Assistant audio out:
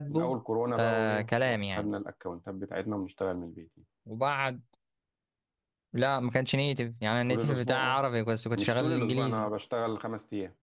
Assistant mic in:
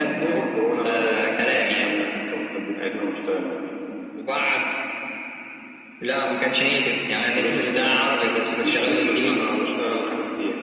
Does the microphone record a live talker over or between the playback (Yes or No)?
No